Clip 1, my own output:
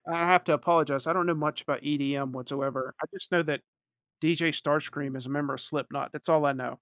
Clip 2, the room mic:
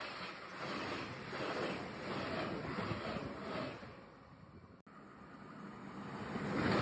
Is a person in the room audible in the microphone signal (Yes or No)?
No